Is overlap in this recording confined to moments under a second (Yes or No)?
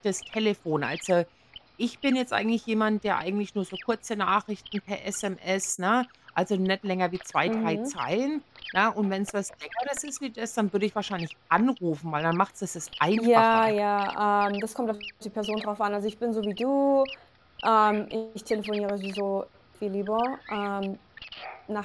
Yes